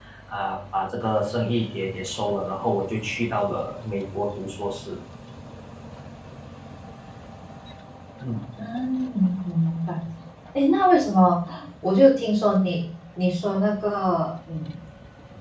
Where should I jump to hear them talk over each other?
none

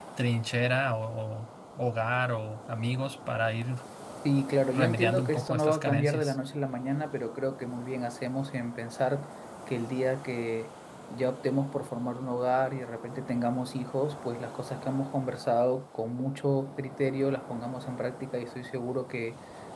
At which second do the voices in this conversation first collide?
5 s

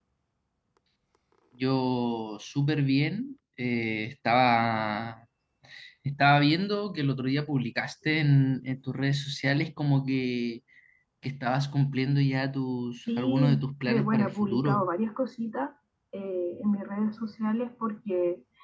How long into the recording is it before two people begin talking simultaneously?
13 s

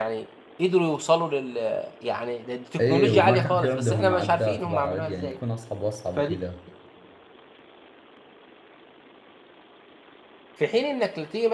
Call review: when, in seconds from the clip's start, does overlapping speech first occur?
3 s

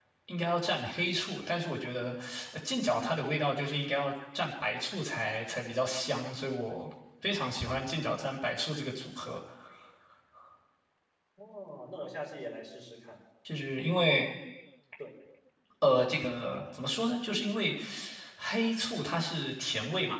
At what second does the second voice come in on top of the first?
none

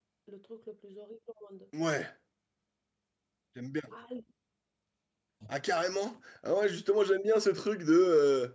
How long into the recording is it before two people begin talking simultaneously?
none

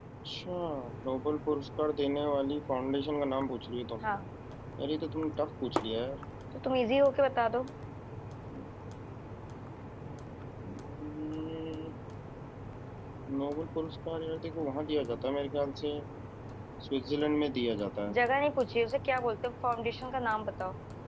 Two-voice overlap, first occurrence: none

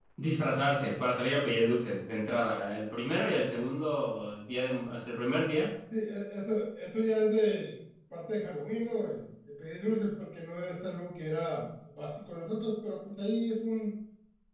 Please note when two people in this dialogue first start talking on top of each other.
none

